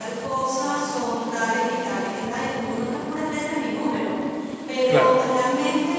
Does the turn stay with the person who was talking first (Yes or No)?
Yes